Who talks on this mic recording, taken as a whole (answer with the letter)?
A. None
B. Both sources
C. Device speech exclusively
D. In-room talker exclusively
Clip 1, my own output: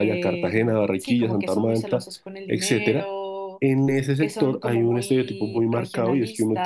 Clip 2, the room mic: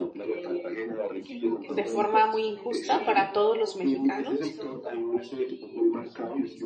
B